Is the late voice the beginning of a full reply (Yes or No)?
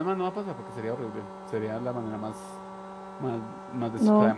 No